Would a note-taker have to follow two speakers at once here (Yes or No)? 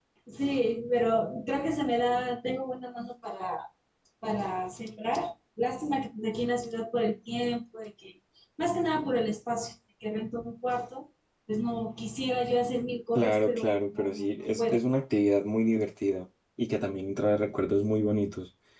Yes